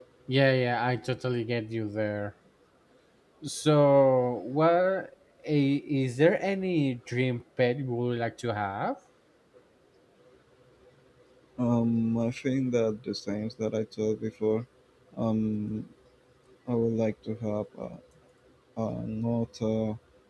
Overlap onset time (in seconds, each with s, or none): none